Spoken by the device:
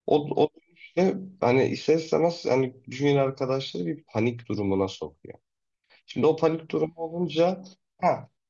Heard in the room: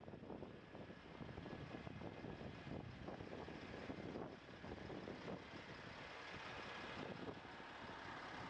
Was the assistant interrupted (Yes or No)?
No